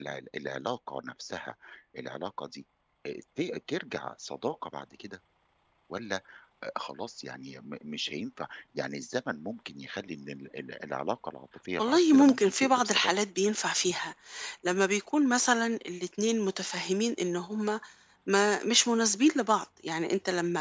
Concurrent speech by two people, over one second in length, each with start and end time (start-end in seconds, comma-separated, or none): 11.8-13.1